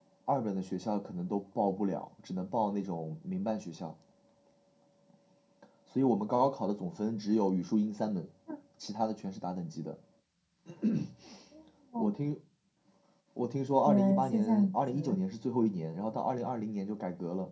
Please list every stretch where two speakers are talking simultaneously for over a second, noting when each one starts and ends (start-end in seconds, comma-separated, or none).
13.9-15.2